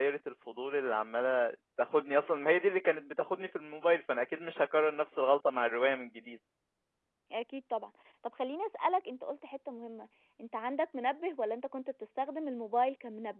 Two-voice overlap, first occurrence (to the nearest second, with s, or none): none